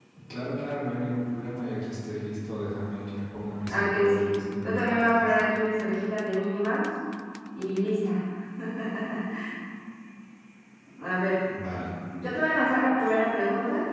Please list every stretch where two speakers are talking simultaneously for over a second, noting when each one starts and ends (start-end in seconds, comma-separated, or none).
3.7-5.1